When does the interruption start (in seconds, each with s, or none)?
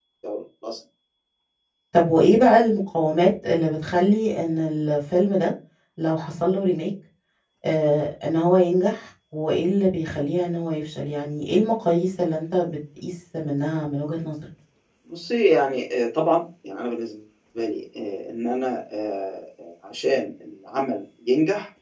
none